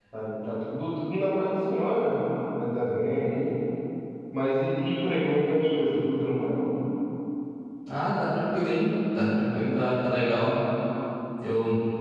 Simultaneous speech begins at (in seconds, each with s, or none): none